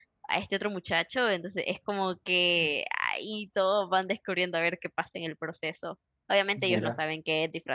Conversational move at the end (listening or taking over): listening